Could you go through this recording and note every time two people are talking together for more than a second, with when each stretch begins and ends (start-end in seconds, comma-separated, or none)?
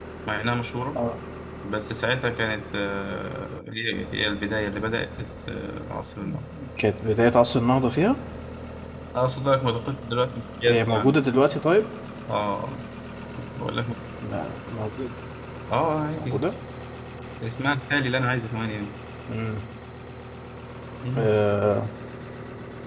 none